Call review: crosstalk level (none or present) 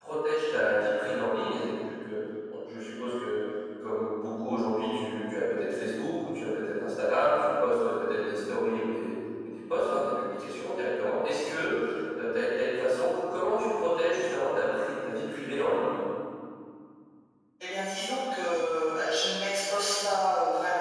none